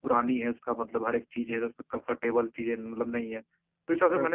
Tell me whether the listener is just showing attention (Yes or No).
Yes